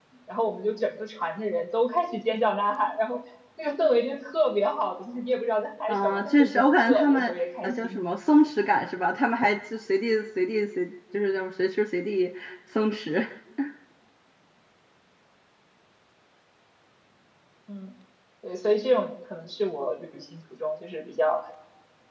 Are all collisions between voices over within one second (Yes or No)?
No